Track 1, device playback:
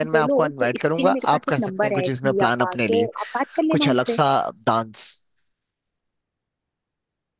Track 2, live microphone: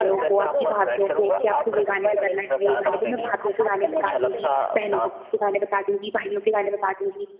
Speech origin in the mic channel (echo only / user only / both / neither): both